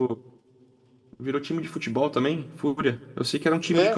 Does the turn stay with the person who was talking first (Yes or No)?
No